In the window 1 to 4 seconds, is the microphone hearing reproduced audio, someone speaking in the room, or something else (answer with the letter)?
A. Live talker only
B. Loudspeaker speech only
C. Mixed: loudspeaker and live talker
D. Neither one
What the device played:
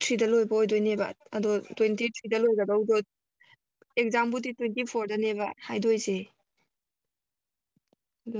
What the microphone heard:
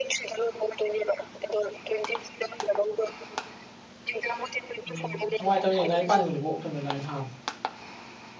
B